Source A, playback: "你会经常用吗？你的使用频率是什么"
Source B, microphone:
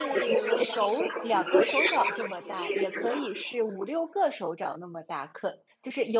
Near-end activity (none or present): present